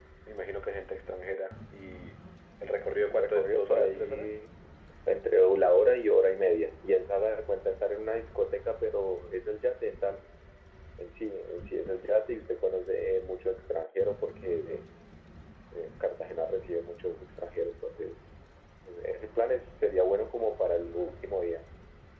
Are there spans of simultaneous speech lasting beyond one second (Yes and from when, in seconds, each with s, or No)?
Yes, from 3.1 s